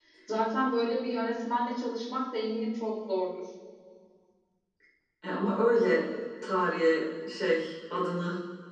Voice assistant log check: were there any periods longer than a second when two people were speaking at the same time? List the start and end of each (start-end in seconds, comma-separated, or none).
none